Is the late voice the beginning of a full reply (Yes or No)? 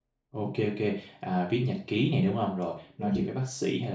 No